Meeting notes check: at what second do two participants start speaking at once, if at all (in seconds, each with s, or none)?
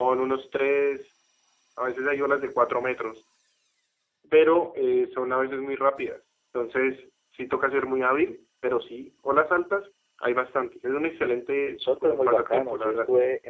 11.7 s